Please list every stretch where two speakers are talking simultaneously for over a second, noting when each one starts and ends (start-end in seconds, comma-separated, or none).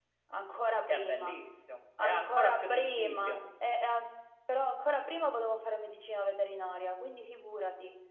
2.0-3.4